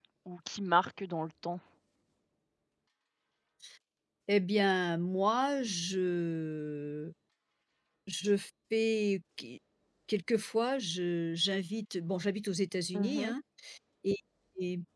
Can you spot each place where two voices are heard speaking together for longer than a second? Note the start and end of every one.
none

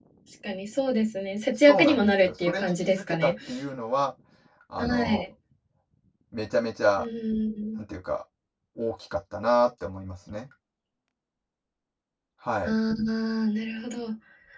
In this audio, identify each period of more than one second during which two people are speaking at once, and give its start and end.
1.6-3.3

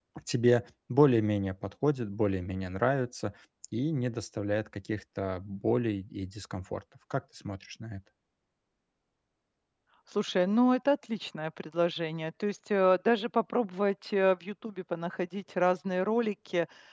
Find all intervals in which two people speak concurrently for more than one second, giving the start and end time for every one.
none

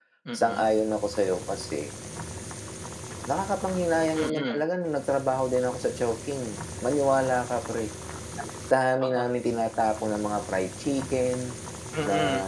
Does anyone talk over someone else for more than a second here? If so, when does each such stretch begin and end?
none

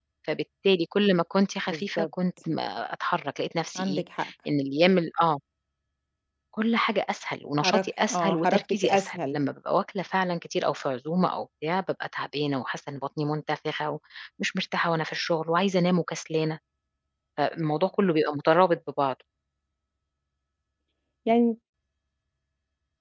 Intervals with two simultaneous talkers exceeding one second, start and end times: 7.6-9.4

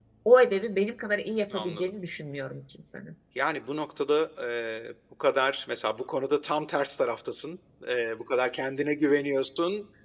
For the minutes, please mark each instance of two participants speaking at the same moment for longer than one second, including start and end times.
none

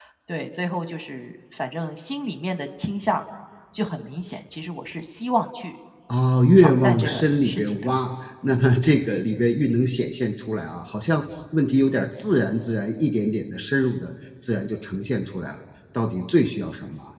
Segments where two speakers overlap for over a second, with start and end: 6.6-7.9

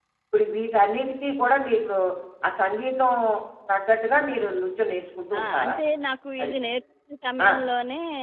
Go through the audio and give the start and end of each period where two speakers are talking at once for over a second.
none

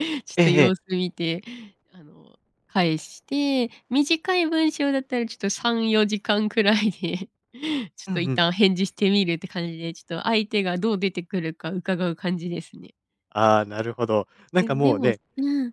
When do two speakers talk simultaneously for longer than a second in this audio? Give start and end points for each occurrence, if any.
none

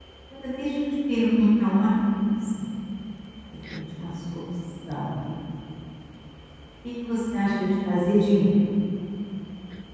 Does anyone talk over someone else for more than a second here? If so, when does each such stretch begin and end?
none

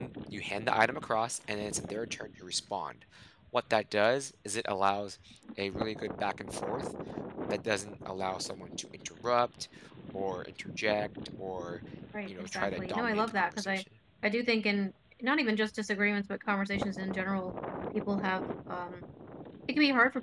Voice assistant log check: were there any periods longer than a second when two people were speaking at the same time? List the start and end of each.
12.3-13.8

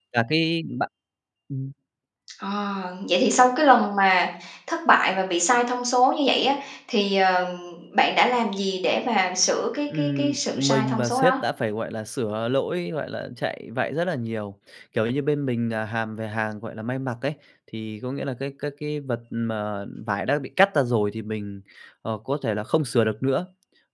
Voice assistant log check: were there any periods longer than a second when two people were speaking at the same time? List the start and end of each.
9.9-11.4

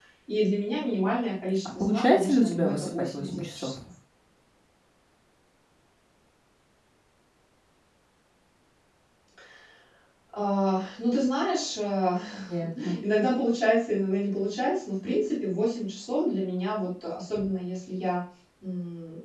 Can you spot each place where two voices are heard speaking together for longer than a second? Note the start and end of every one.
1.6-3.7

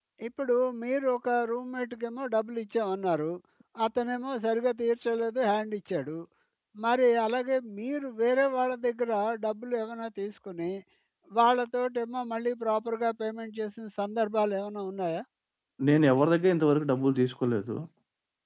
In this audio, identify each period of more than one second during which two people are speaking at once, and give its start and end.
none

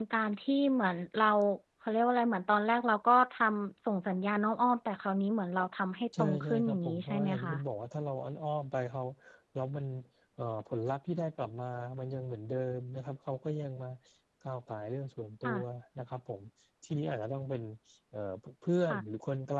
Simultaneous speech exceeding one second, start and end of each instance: 6.2-7.5

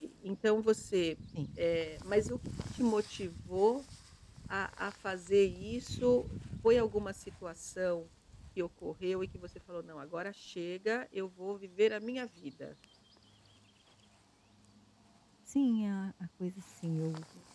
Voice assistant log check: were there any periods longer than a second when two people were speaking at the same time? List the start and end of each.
none

